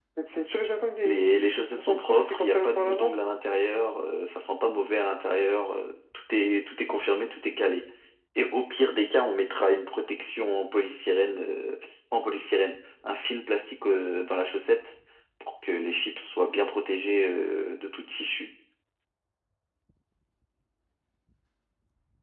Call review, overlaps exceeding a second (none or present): present